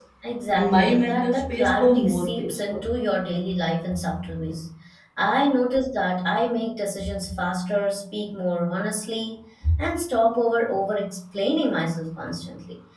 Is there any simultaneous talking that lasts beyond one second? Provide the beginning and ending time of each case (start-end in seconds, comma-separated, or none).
0.5-2.8